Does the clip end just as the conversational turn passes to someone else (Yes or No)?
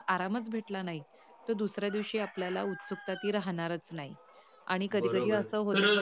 Yes